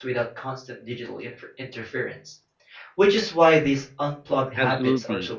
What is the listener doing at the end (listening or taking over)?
taking over